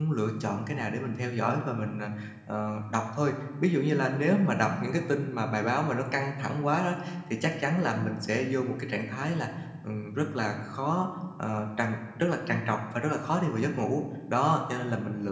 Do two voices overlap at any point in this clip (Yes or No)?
No